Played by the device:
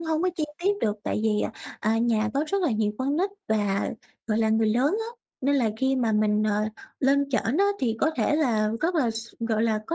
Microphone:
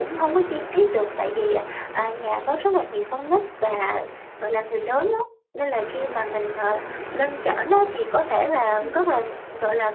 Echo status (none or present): present